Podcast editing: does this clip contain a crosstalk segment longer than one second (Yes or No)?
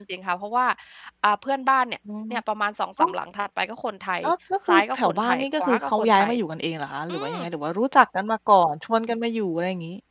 Yes